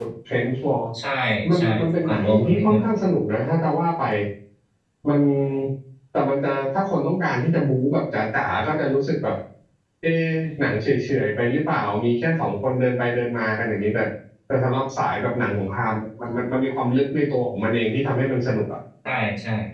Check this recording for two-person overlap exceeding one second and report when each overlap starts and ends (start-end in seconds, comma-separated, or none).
1.6-3.0